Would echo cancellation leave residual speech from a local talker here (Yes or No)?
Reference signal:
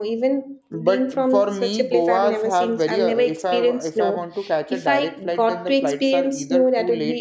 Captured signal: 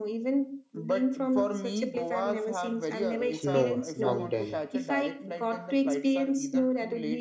Yes